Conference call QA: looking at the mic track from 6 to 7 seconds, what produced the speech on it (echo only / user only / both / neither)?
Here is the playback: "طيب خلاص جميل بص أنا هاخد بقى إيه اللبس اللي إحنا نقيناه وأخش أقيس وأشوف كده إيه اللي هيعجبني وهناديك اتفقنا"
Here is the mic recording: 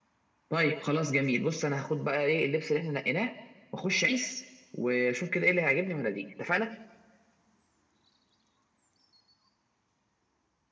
echo only